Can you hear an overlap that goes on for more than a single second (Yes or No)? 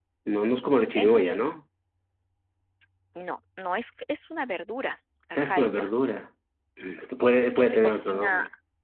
Yes